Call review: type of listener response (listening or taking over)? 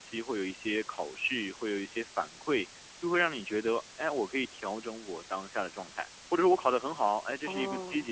listening